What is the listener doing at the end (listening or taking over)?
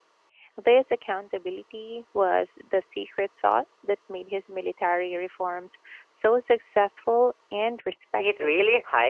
taking over